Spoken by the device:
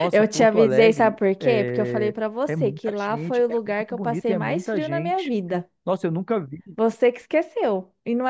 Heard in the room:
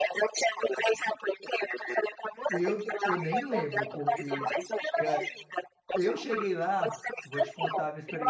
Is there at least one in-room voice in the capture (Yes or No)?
Yes